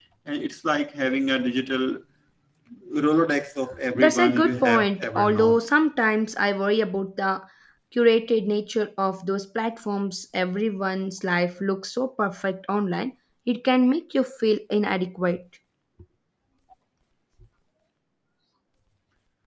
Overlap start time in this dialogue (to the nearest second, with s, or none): 4 s